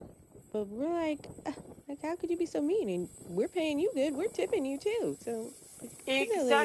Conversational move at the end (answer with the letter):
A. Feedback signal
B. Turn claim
B